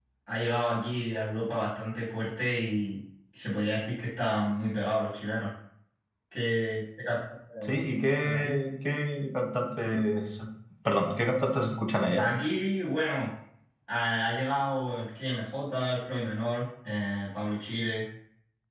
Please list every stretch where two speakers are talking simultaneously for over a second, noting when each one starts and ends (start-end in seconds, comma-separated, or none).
none